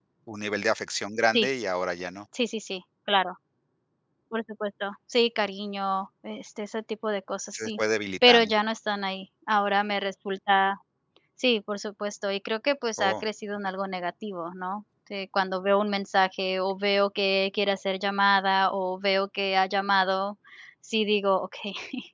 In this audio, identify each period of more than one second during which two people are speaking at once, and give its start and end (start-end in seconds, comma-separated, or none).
none